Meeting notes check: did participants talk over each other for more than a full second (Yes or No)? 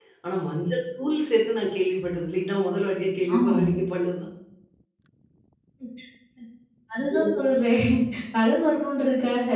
No